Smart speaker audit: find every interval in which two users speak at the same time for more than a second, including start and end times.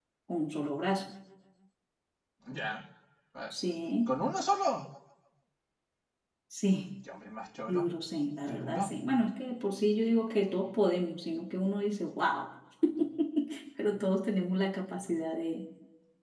none

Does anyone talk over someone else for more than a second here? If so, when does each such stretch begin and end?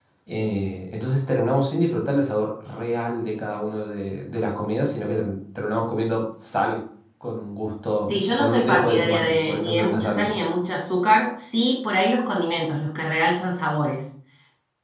8.1-10.3

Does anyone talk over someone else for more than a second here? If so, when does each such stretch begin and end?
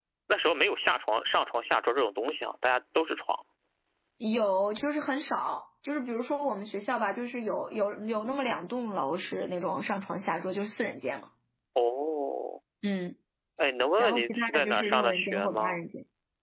14.0-15.8

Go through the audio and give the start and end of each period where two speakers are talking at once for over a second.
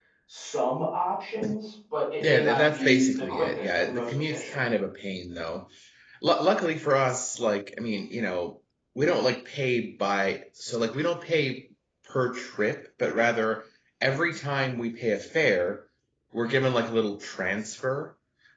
2.2-4.5

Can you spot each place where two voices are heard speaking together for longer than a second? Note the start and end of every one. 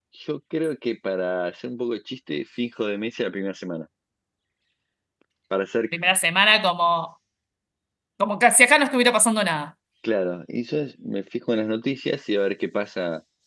none

